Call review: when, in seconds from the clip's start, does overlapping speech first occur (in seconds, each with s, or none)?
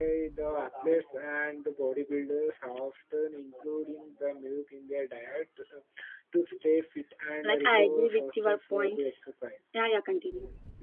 7.4 s